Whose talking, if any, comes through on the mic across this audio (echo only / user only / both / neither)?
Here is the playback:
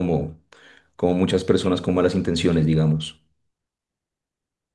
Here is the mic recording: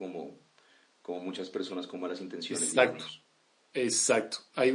both